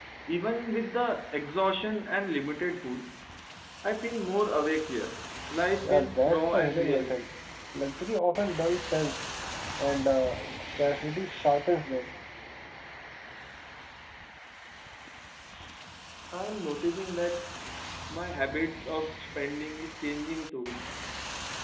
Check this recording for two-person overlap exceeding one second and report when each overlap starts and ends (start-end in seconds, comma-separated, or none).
5.8-7.2